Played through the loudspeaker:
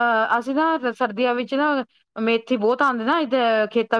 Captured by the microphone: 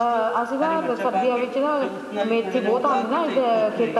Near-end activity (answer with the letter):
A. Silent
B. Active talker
B